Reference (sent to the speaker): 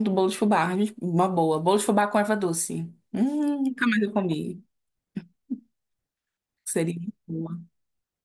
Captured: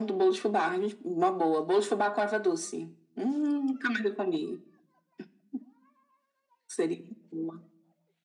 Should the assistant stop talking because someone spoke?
No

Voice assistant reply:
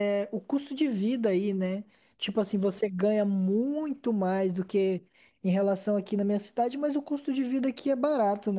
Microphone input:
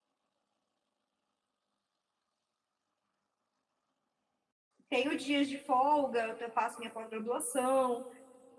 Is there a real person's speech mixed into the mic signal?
Yes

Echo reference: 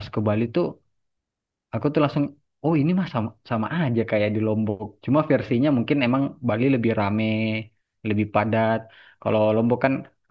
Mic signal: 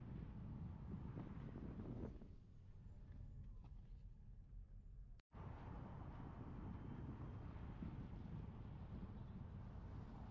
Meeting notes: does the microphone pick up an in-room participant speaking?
No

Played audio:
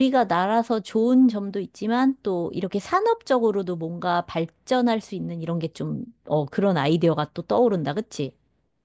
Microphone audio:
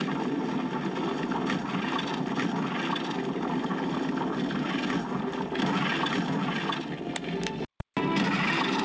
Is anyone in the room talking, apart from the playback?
No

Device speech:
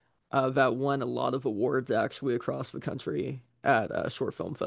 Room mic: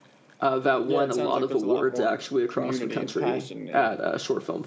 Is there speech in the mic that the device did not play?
Yes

